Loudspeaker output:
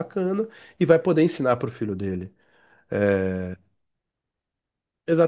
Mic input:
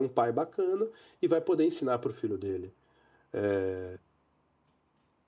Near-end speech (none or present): none